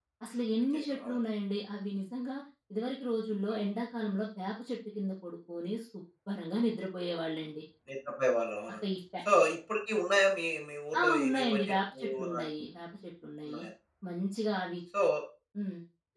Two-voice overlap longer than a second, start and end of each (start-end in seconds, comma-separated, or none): 11.0-12.4